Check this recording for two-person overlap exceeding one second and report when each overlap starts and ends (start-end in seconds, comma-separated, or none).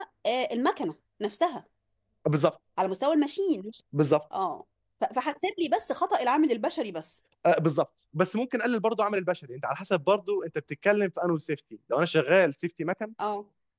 none